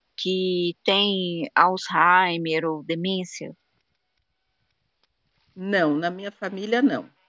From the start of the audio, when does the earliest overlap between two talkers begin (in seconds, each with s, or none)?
none